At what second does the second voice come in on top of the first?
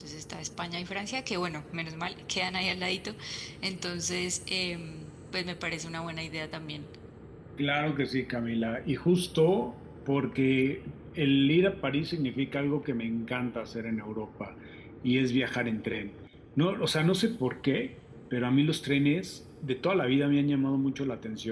none

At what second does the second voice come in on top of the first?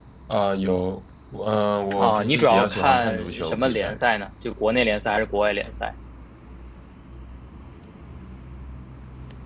1.9 s

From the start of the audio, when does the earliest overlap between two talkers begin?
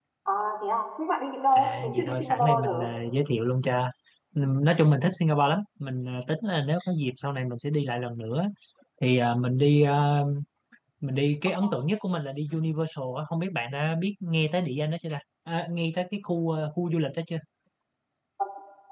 1.6 s

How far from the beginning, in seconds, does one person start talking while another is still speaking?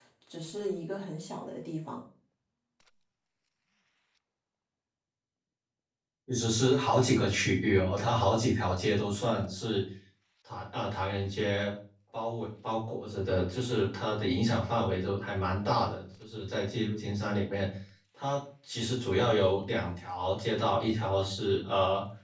none

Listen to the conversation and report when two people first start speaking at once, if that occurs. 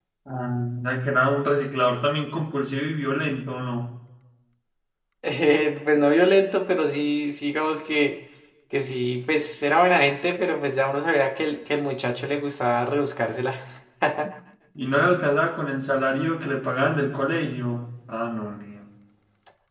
none

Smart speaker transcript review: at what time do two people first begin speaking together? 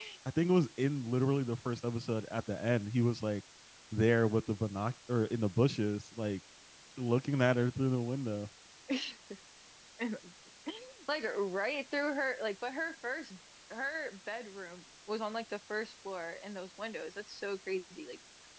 none

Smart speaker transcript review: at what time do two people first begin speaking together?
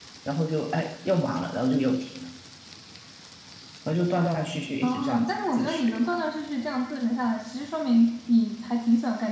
4.8 s

